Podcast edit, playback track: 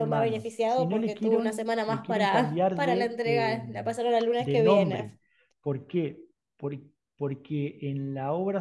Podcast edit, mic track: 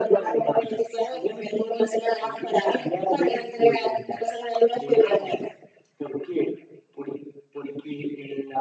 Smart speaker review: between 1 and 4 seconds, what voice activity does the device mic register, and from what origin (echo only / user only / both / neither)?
echo only